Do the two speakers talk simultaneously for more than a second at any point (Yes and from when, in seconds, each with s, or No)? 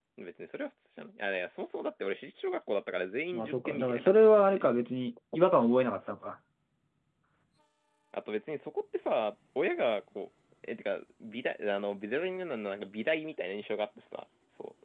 Yes, from 3.3 s